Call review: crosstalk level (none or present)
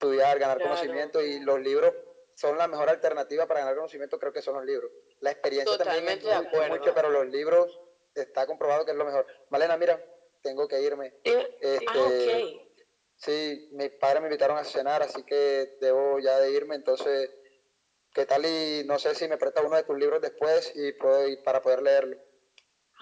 present